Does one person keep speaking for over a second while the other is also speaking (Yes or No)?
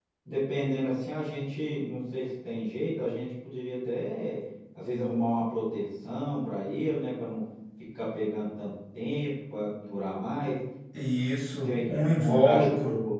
Yes